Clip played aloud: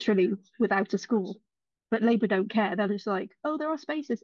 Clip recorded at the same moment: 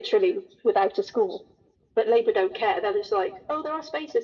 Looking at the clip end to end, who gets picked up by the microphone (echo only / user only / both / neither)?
echo only